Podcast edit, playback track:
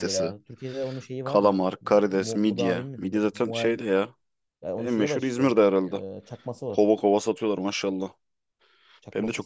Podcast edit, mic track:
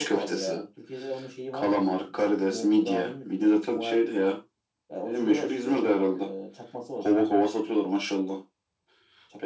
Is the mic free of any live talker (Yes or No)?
Yes